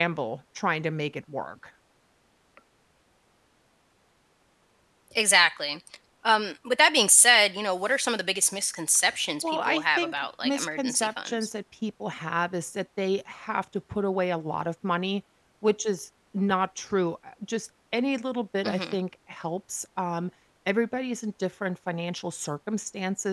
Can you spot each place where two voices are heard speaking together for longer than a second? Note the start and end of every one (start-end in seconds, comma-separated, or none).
9.4-11.5